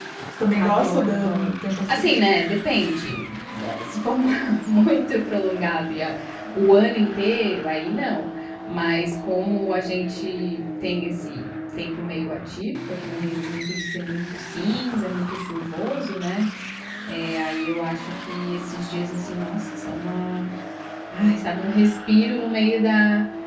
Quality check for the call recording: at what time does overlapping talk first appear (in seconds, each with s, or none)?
0.5 s